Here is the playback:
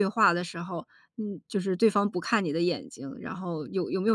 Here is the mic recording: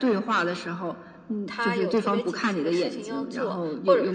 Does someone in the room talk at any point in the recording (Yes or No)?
Yes